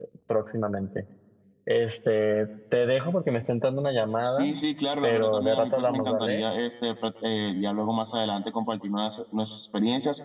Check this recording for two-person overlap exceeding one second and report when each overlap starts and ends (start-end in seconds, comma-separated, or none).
5.0-6.4